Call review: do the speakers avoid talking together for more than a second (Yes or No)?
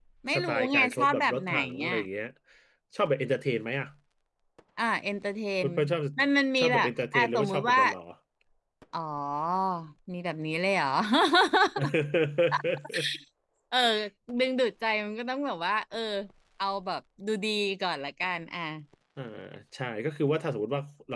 No